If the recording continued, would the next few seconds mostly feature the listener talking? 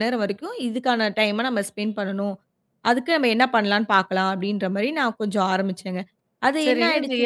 Yes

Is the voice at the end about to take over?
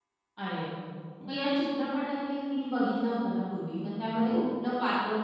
No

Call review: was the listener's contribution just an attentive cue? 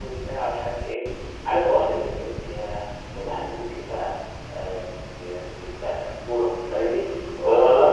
No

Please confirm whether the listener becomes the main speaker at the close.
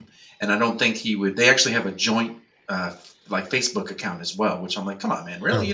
No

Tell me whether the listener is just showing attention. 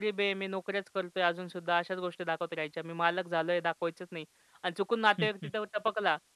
Yes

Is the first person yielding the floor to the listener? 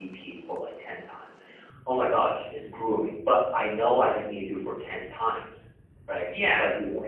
No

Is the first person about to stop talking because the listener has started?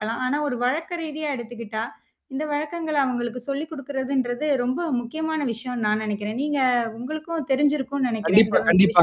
Yes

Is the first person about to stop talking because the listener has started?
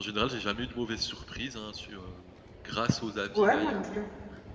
Yes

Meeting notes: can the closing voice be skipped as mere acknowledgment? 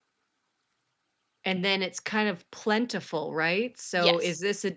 Yes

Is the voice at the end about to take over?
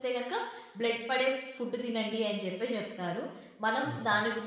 No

